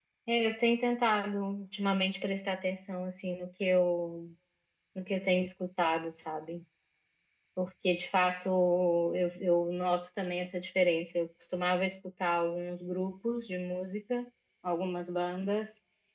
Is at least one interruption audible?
No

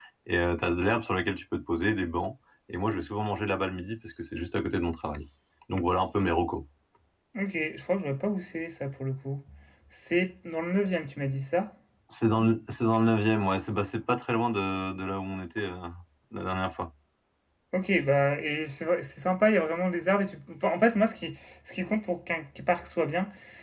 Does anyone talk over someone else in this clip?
No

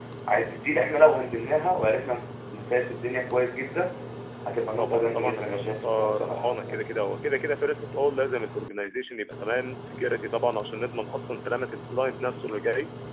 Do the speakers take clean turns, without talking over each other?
No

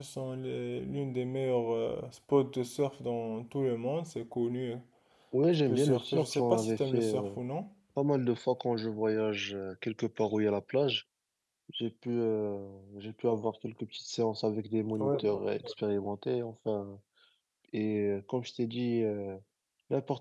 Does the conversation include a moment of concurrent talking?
Yes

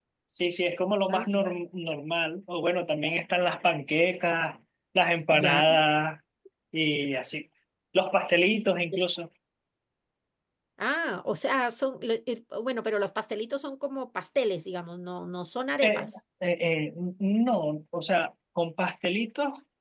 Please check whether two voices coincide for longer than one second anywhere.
No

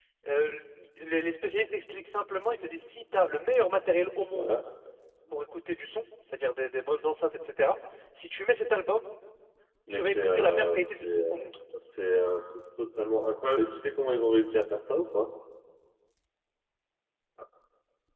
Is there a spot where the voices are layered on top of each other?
Yes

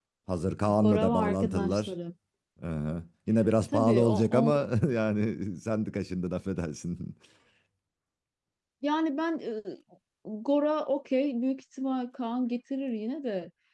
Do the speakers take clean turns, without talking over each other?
No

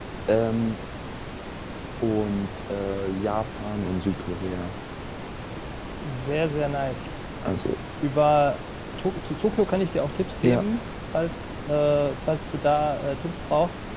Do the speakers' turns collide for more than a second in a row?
No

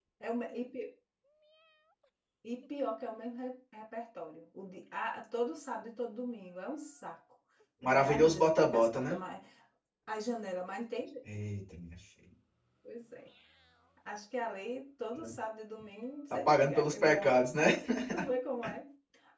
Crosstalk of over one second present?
Yes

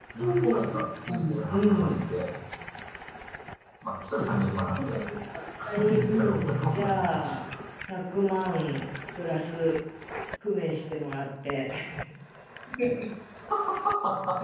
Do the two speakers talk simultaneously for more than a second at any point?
Yes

